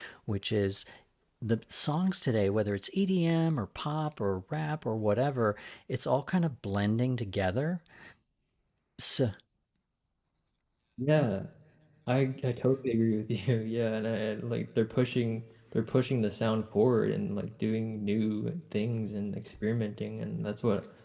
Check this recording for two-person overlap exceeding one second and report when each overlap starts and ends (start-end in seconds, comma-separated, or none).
none